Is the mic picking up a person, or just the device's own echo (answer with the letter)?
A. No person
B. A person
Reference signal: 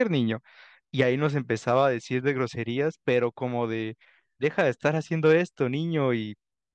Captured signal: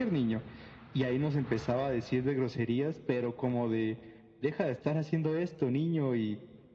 A